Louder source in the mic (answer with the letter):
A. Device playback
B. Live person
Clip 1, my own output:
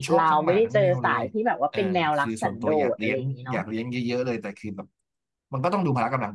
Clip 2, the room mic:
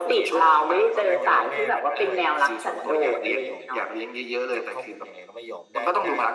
A